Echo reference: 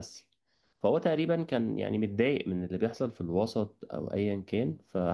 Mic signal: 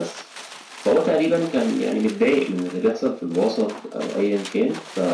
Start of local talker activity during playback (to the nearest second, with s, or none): none